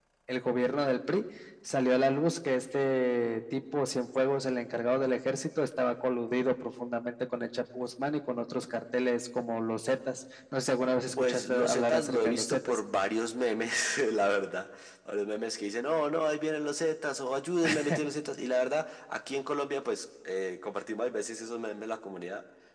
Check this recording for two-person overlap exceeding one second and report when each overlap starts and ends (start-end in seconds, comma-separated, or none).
11.2-12.8